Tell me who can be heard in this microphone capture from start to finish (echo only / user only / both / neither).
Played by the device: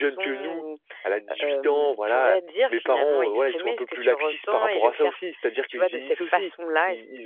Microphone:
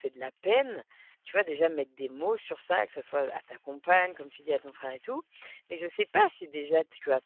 user only